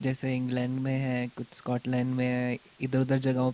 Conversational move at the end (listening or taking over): listening